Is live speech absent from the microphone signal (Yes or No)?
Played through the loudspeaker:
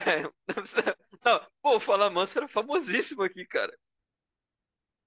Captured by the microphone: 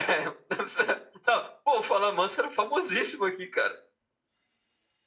Yes